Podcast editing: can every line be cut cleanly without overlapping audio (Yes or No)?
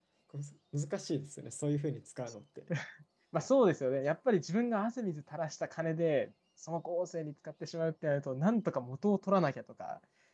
Yes